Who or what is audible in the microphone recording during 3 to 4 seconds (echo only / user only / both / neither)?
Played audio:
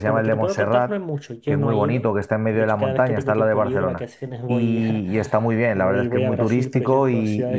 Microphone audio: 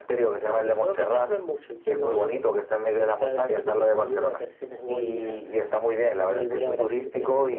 echo only